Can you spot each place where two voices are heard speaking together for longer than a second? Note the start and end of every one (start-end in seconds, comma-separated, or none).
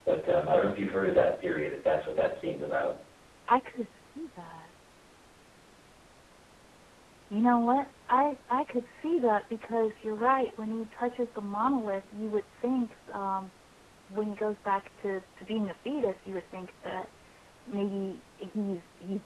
none